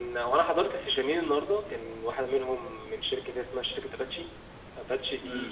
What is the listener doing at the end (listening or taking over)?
taking over